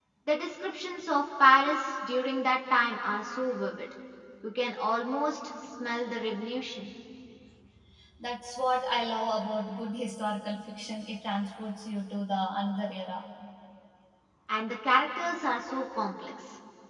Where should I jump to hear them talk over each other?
none

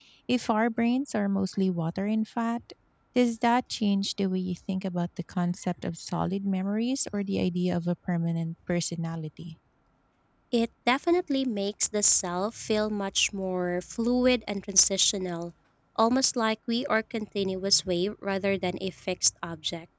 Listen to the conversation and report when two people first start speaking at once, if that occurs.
none

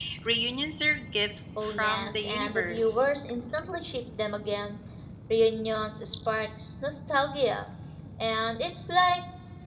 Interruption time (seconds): 1.6 s

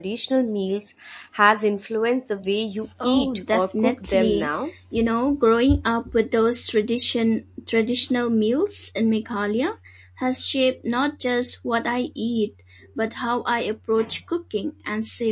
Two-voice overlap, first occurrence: 3.0 s

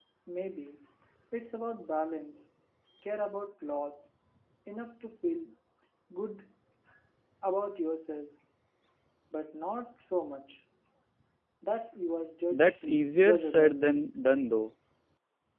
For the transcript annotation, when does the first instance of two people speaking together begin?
12.5 s

